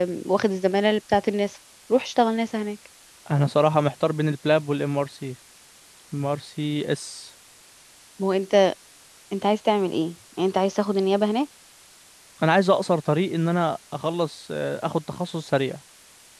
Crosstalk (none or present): none